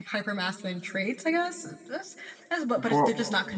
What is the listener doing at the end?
listening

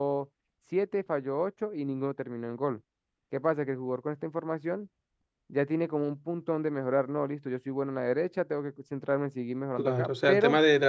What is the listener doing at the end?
taking over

